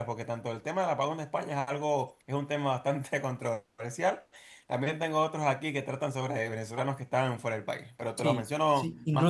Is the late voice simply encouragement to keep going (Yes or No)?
No